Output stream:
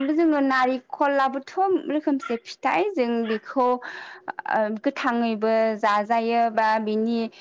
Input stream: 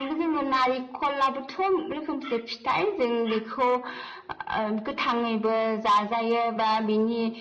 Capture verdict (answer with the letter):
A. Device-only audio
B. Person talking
A